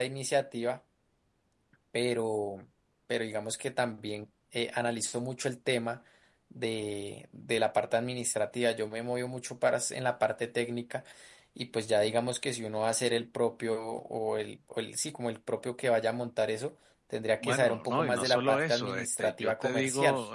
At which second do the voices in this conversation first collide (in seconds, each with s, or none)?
17.4 s